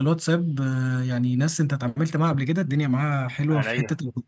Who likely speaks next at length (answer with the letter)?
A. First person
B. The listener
A